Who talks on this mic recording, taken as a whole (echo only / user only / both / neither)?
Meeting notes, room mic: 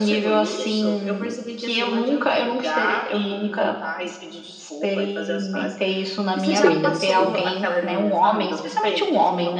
both